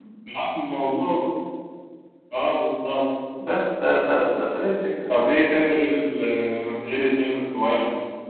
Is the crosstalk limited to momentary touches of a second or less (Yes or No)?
Yes